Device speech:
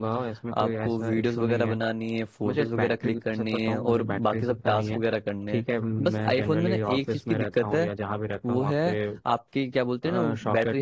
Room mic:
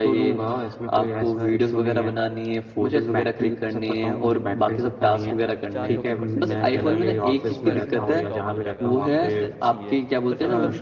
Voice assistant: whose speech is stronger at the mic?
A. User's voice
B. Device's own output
B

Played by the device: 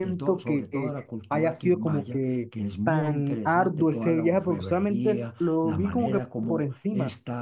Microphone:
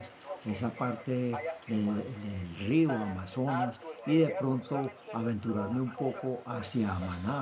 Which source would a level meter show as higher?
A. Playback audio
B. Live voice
B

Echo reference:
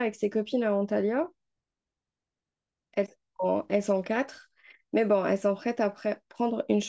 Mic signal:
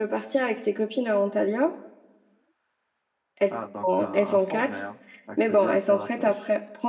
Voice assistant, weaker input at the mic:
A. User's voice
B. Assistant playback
A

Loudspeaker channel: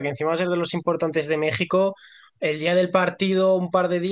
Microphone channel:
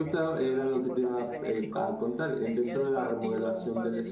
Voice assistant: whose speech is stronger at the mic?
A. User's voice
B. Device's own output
A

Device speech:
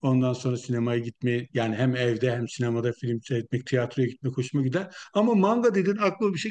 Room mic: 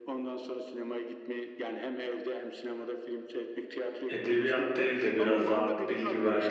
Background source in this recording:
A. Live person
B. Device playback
B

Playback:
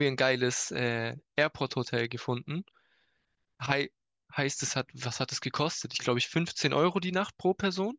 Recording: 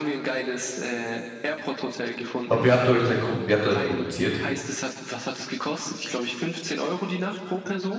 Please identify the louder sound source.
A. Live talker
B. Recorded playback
A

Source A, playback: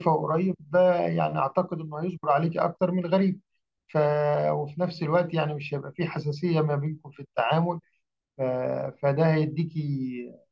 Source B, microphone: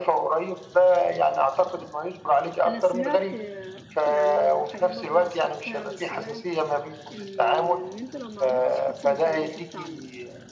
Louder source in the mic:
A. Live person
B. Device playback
B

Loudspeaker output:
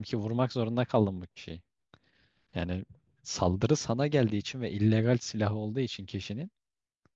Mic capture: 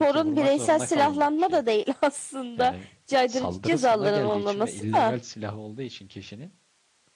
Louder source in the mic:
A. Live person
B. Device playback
A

